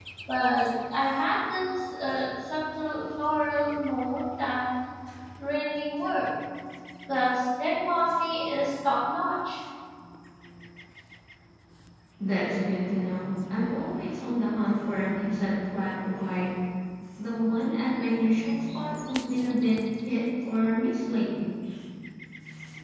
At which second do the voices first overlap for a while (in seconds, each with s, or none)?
none